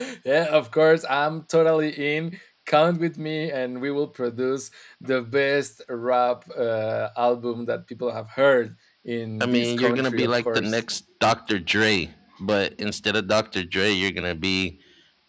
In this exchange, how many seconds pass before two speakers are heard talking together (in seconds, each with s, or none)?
9.4 s